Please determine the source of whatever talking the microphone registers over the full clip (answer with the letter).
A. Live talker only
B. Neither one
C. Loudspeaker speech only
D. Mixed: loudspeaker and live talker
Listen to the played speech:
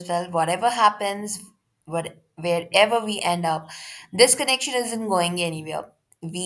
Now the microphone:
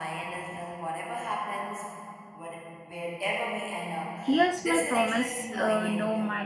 D